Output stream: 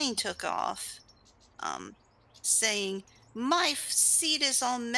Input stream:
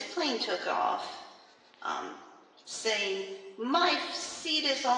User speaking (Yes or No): No